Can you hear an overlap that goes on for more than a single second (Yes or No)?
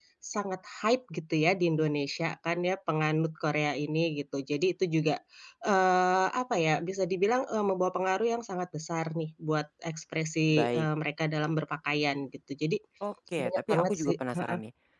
Yes